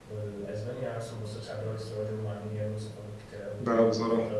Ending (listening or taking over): listening